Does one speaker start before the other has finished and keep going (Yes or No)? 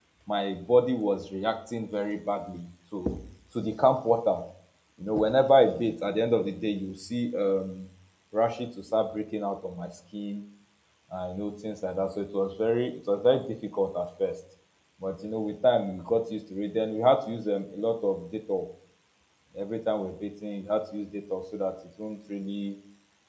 No